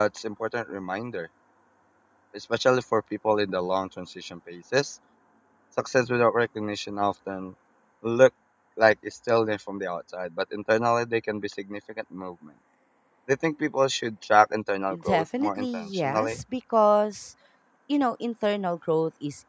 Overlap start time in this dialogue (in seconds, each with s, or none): 14.9 s